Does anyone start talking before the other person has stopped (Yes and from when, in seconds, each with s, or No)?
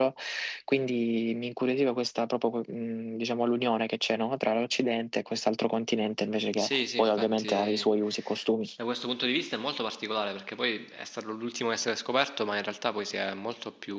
Yes, from 6.5 s